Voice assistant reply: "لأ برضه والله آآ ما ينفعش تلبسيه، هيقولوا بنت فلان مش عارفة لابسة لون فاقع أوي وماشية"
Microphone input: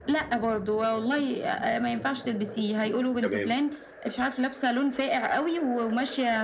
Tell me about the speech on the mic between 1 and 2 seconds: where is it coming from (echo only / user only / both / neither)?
echo only